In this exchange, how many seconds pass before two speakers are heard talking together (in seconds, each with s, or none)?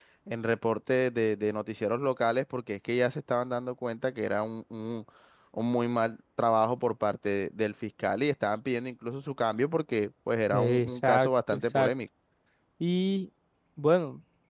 10.5 s